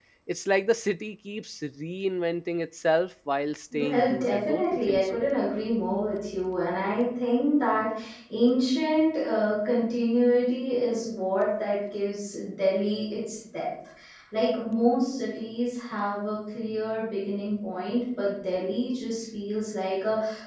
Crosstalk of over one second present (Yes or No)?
Yes